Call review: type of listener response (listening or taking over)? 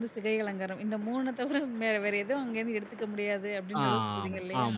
taking over